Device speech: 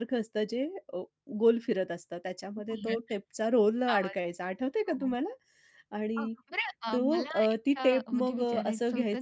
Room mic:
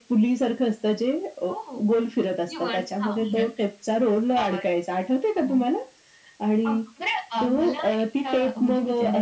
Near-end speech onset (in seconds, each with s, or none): 1.5 s